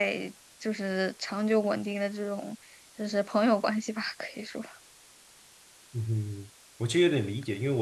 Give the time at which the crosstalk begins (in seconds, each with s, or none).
none